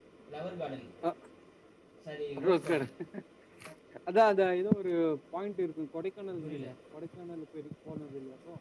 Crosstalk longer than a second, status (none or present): none